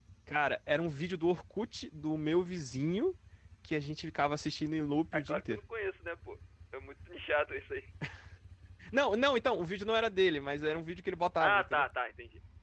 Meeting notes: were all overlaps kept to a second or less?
Yes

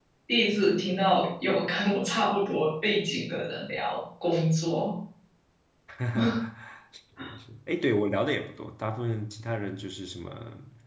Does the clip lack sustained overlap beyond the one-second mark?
Yes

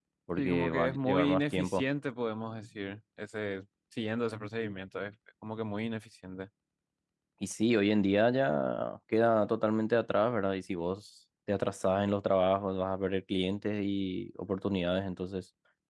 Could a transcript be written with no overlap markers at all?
No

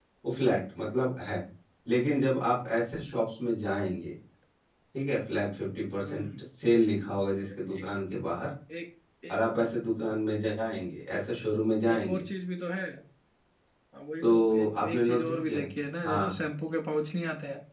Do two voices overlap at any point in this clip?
Yes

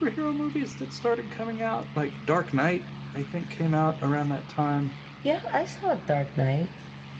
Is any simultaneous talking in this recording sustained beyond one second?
No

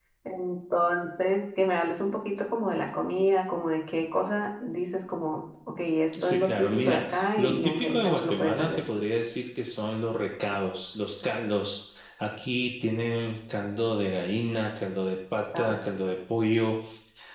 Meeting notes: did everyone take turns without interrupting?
No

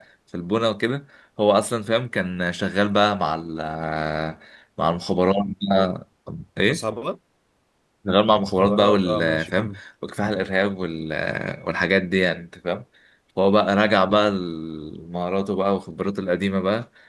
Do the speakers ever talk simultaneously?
Yes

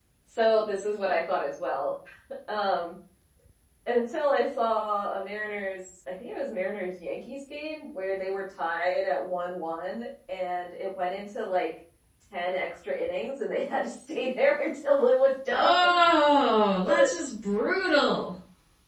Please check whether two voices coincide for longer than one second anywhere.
No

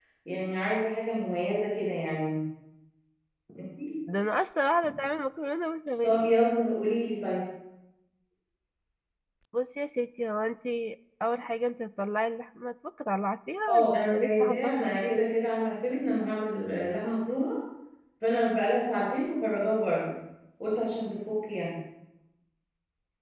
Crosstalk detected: Yes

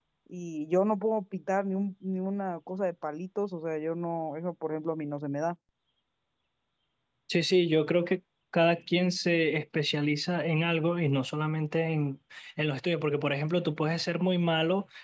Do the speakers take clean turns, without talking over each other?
Yes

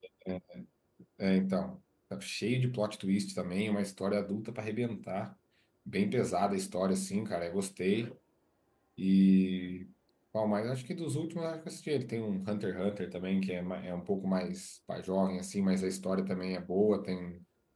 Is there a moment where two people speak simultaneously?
No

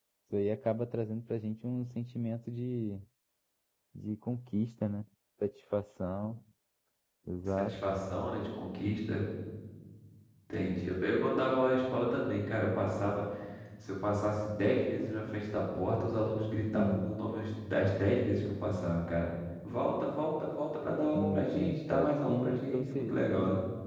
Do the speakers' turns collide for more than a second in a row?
Yes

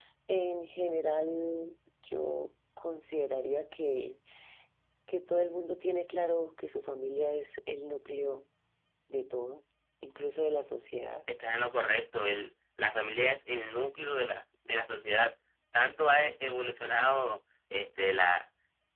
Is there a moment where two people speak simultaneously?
No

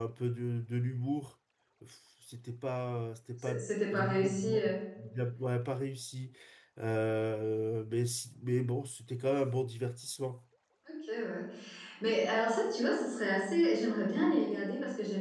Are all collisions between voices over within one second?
No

